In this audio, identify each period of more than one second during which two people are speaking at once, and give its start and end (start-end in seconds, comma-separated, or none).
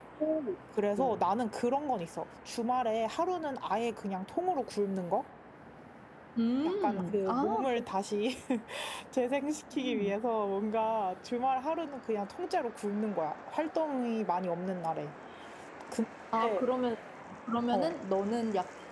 6.6-7.8